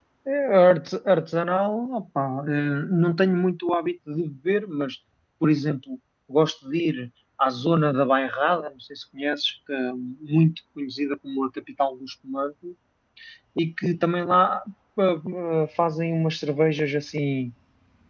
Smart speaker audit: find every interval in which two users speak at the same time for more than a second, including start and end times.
none

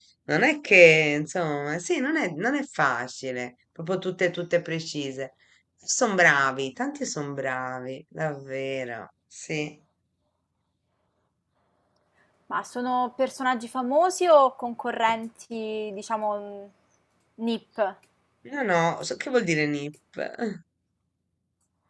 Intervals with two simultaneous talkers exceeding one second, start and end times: none

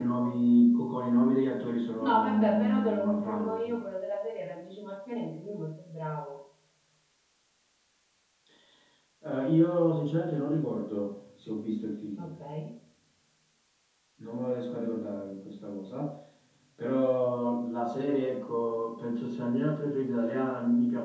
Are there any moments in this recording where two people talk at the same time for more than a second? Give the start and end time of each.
2.0-3.6

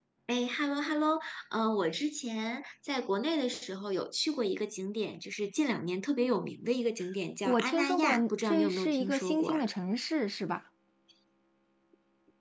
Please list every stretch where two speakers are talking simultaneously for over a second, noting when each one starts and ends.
7.5-9.6

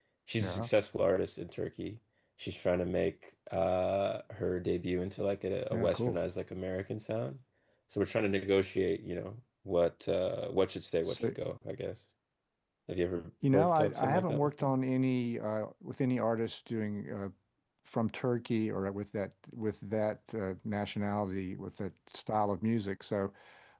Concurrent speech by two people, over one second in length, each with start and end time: 13.5-14.7

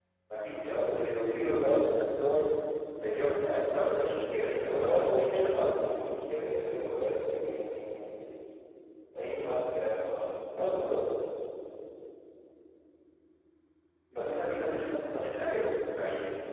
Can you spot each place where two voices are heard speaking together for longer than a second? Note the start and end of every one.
4.5-5.7

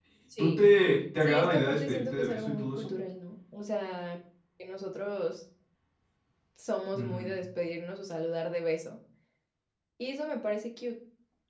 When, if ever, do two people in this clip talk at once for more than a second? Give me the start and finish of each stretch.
1.2-2.9

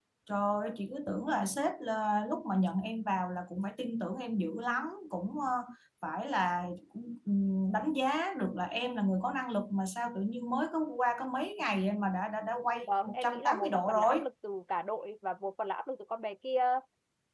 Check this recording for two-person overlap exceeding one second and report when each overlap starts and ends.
12.8-14.2

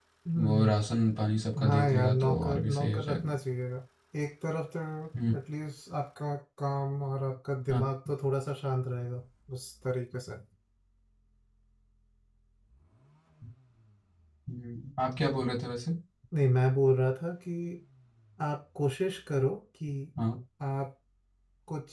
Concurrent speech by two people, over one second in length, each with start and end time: 1.6-3.3

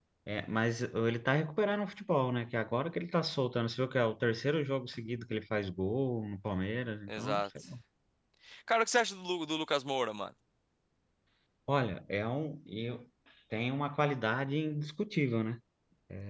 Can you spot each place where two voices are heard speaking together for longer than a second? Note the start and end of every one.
none

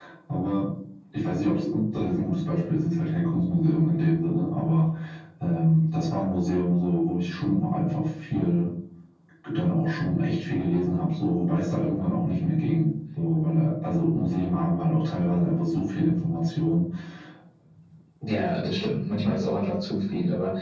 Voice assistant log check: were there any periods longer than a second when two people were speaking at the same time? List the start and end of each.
none

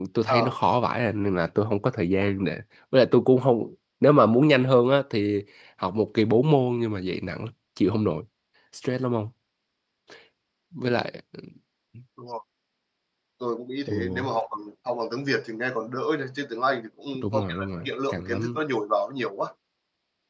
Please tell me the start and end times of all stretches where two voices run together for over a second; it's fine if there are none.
17.2-18.6

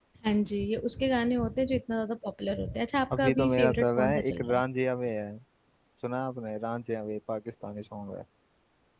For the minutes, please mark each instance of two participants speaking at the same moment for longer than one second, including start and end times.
3.1-4.6

